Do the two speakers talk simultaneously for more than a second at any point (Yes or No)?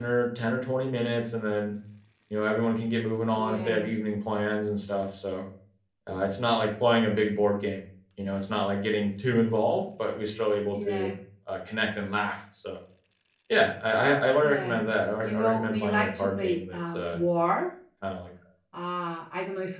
Yes